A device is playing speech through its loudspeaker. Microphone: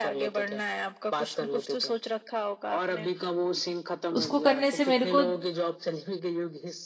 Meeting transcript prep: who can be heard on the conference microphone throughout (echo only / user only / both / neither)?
both